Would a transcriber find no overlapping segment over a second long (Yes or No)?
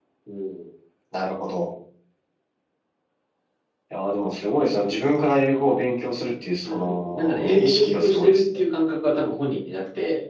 No